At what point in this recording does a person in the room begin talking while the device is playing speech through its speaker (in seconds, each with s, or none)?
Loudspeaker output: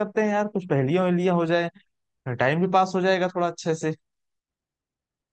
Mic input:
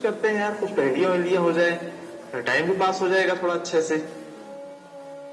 none